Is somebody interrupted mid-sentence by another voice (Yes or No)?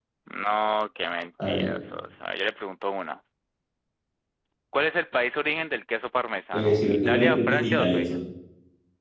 Yes